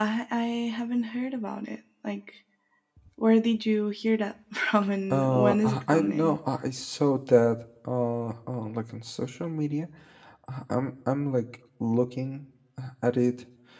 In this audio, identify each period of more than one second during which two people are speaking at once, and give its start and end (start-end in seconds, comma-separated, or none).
5.1-6.4